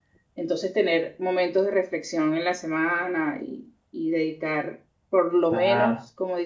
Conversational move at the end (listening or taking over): listening